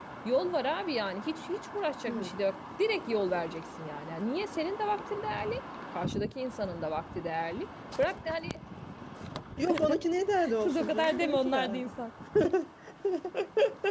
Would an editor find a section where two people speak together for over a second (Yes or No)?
Yes